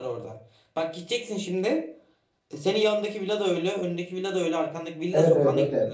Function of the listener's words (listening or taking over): taking over